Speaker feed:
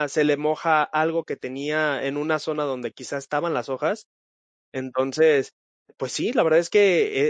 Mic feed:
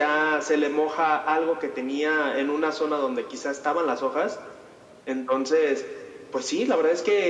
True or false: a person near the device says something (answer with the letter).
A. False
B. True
A